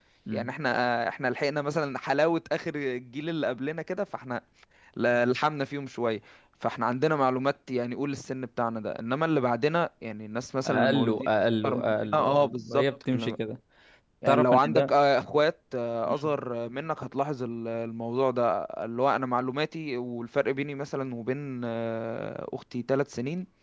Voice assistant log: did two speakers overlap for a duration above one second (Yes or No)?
Yes